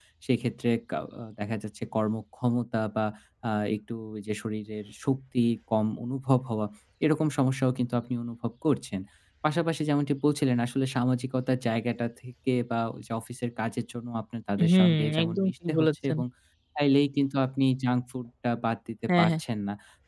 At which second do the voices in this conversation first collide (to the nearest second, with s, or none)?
15 s